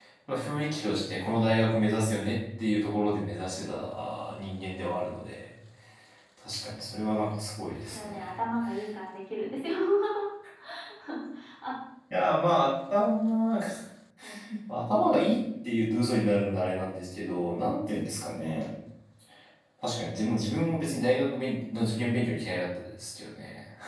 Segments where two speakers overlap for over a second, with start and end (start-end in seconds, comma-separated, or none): none